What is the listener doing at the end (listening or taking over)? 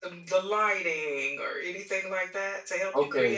taking over